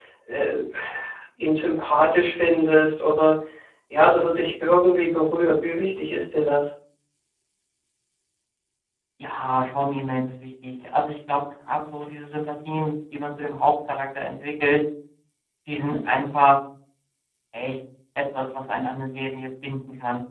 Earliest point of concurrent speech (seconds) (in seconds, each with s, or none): none